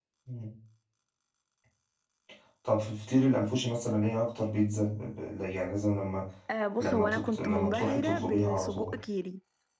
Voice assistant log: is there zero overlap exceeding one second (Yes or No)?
No